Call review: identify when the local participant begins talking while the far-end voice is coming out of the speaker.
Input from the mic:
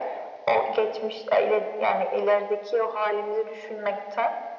none

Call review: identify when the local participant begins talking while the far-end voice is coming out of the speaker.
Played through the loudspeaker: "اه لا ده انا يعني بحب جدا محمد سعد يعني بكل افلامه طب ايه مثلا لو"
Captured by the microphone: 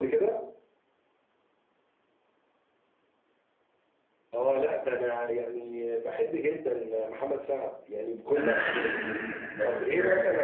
8 s

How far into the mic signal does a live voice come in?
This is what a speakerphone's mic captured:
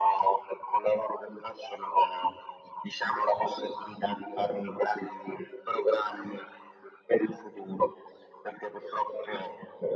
none

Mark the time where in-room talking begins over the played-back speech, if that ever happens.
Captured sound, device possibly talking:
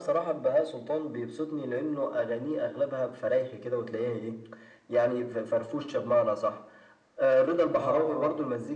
8 s

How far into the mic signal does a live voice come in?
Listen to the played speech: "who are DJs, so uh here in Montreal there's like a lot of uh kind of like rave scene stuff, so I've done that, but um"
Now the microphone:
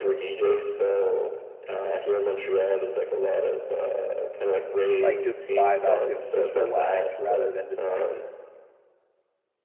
5 s

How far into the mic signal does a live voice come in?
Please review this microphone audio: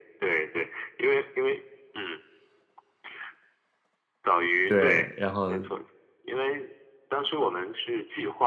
5 s

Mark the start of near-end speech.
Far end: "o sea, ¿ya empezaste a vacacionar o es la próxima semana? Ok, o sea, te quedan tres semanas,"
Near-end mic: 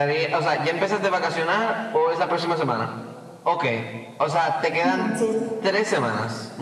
5 s

